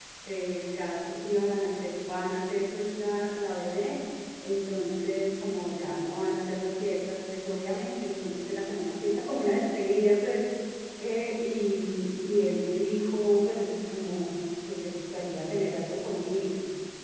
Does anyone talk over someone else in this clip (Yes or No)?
No